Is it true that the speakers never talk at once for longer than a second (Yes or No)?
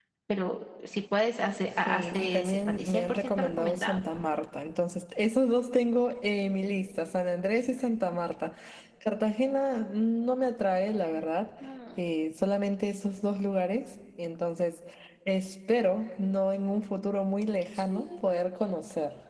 No